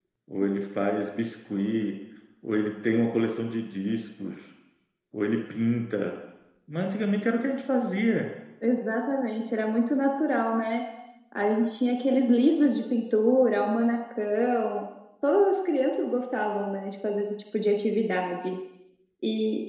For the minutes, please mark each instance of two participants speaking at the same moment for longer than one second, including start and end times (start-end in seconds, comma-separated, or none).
none